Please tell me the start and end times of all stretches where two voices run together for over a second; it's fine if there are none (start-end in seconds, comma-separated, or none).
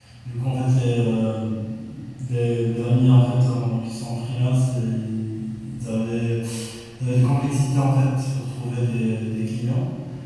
none